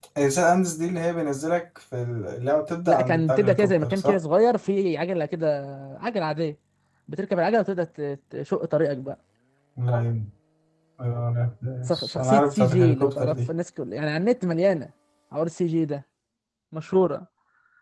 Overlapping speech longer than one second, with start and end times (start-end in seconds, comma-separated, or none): 2.9-4.1, 11.8-13.4